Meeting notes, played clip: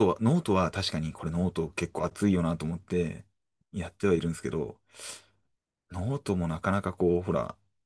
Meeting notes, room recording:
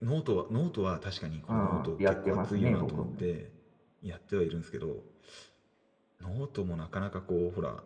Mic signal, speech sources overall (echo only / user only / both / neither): both